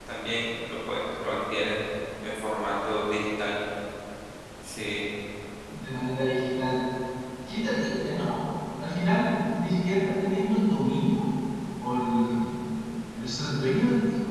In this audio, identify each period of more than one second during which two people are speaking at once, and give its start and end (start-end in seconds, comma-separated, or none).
none